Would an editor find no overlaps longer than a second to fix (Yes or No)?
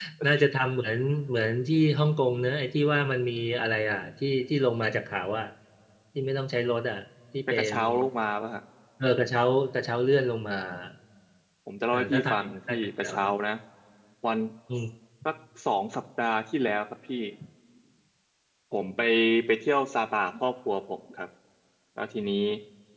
No